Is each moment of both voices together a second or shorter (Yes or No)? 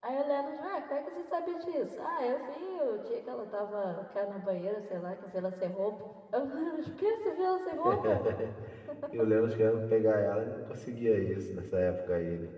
Yes